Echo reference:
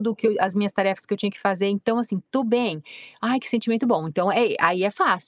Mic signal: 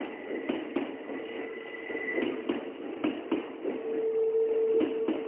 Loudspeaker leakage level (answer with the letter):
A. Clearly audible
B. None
B